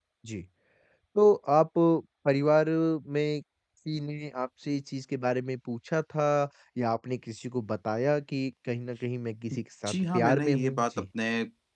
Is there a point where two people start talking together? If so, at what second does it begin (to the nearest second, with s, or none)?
10 s